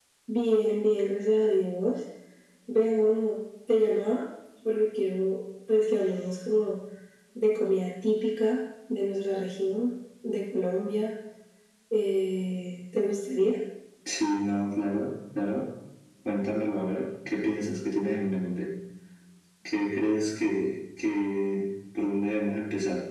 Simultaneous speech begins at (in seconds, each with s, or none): none